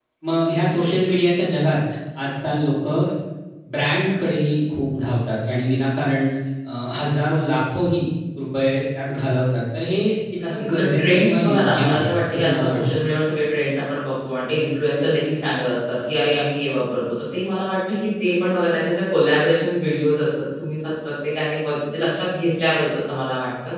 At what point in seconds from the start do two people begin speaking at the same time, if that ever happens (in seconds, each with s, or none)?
10.4 s